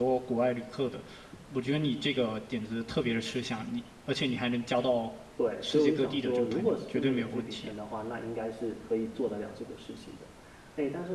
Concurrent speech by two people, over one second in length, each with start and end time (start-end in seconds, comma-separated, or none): 5.6-7.7